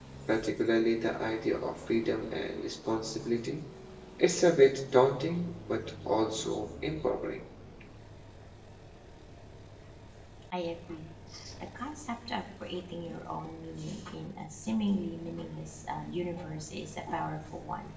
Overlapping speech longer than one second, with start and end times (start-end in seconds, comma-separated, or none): none